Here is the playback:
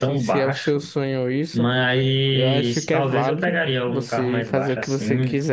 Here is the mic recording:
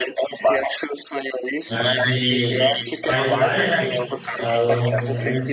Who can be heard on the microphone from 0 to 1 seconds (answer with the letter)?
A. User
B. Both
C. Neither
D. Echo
D